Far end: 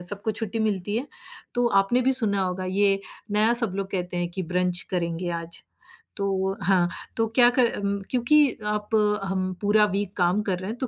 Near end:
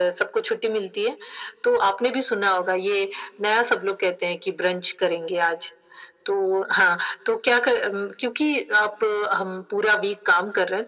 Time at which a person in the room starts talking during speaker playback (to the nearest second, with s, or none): none